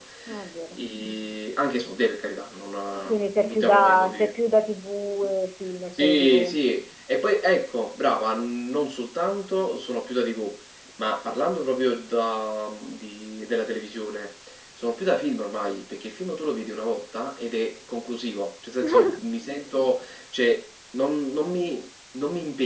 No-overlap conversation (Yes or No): No